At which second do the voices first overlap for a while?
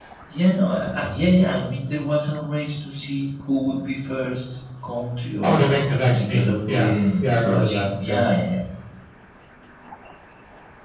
5.4 s

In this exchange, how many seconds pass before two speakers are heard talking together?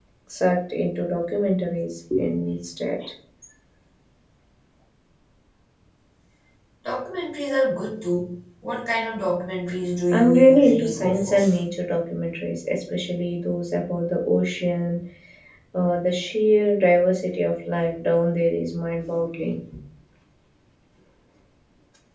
10.1 s

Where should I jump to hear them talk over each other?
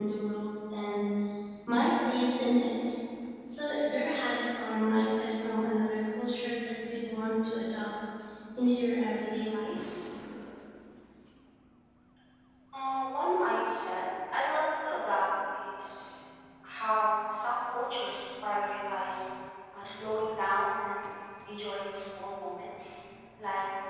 none

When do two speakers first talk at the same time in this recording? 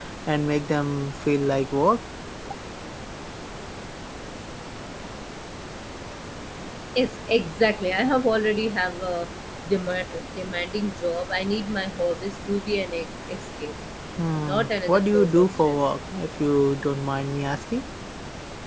14.4 s

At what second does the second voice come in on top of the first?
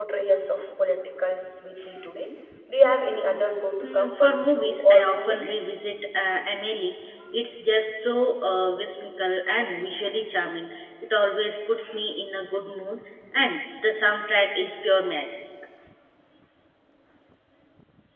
3.8 s

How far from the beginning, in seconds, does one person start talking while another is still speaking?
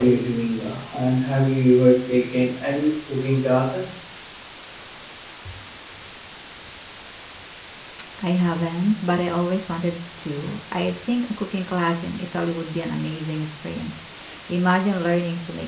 none

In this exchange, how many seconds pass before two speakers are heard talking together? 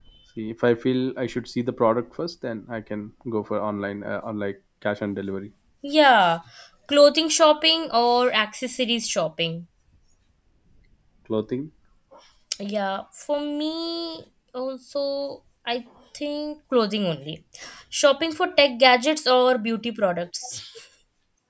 none

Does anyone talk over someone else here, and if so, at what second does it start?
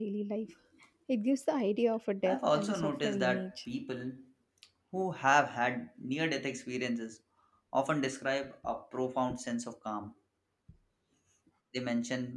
2.2 s

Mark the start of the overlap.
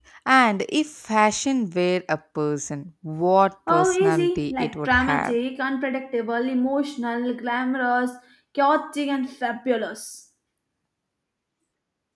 3.7 s

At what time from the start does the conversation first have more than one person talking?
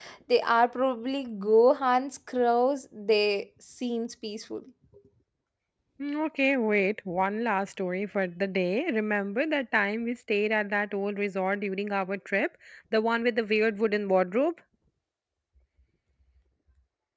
none

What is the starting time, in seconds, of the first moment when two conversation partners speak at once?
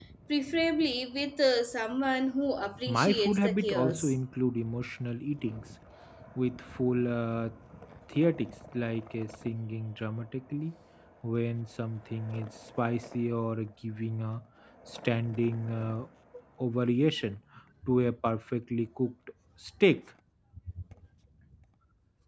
2.9 s

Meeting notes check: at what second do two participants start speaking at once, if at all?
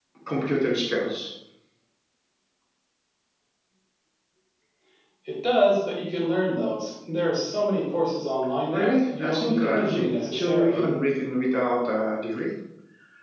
8.7 s

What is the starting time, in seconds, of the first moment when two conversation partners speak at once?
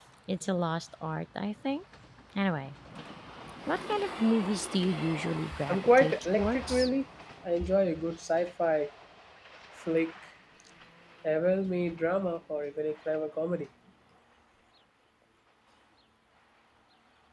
5.7 s

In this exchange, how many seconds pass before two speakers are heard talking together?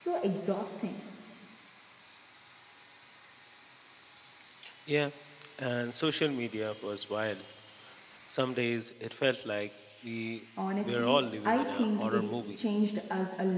10.6 s

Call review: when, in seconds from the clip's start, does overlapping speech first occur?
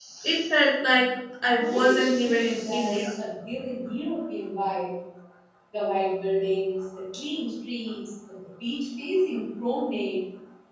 1.6 s

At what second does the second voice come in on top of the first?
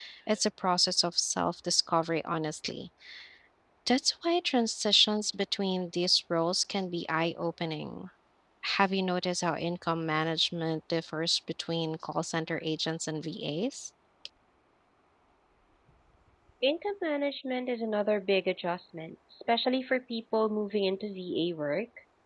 none

